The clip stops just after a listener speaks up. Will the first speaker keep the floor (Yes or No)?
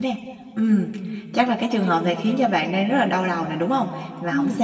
Yes